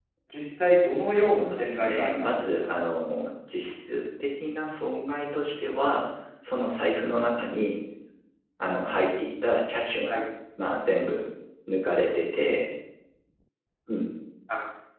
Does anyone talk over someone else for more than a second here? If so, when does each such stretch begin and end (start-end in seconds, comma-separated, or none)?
1.1-2.4